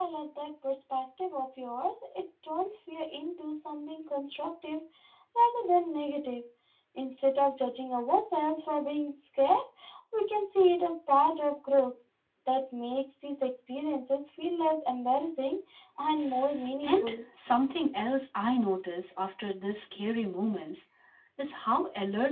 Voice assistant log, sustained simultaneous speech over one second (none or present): none